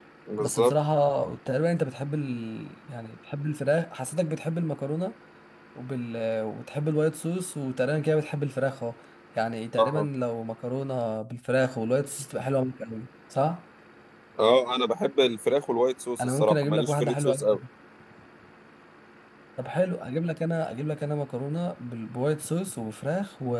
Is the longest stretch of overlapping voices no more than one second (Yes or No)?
No